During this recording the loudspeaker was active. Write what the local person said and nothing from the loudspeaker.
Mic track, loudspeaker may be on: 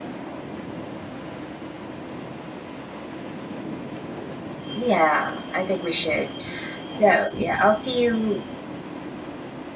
Yeah, I think we should. So, yeah, I'll see you.

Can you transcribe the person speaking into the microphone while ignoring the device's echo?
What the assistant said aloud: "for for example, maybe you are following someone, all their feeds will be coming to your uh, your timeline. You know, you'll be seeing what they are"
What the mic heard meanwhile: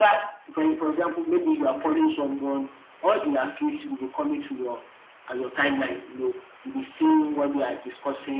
none

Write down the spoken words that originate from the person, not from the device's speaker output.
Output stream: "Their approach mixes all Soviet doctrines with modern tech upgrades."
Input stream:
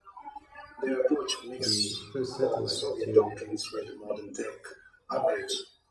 the first satellite, to

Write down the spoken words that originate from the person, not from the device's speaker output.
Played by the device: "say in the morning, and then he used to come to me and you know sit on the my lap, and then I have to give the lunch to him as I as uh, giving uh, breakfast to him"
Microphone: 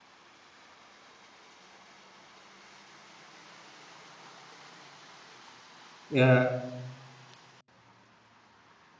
uh,

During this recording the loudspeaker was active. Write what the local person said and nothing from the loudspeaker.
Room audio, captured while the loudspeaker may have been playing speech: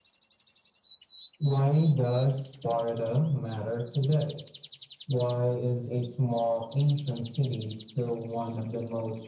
none

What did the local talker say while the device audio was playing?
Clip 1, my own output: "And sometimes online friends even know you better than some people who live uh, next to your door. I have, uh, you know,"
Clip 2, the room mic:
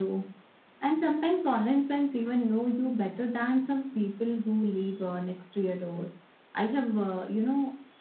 none

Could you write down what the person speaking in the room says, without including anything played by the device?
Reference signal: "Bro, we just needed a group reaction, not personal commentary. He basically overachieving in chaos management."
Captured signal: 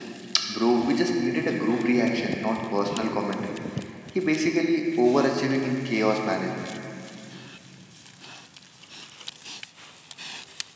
none

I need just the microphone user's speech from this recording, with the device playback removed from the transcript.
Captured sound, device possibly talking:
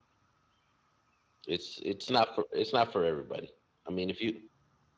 It's it's not for it's not for everybody. I mean, if you,

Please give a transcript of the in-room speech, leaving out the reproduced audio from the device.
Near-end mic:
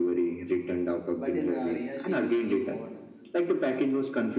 but in uh, reality you see what

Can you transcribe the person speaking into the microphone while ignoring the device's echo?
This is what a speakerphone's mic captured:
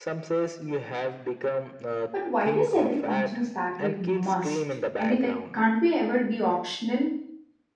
But why does every function start with must? I mean, like, can't we ever be optional?

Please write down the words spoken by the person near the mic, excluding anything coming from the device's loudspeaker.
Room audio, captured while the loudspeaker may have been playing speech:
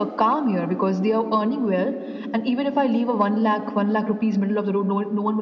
none

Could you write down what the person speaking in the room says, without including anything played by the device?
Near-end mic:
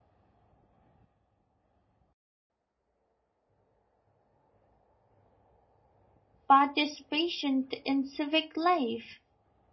participation in civic life.

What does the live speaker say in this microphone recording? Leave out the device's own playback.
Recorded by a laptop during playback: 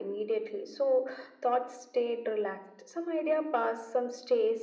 none

